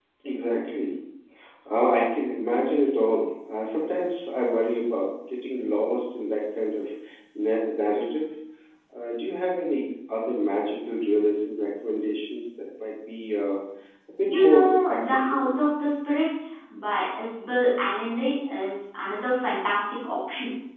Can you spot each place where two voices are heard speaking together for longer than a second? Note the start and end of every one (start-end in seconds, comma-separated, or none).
14.2-15.5